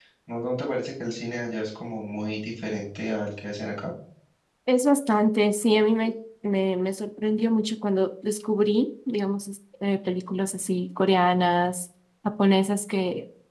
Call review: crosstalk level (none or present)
none